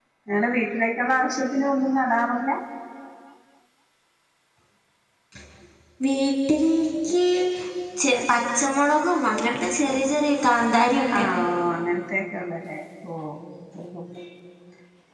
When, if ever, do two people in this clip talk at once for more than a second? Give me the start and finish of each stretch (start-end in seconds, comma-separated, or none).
none